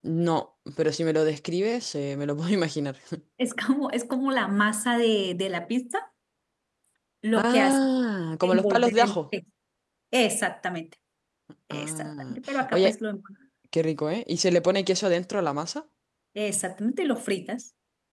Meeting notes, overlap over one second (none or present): present